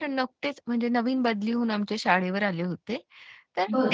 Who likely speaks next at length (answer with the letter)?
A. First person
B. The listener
A